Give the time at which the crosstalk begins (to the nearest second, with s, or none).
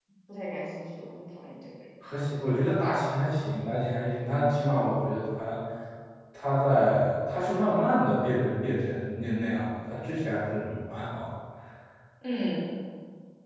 none